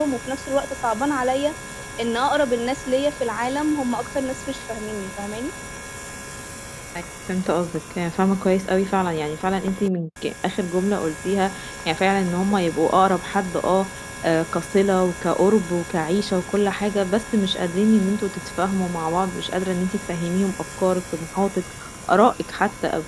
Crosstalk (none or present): none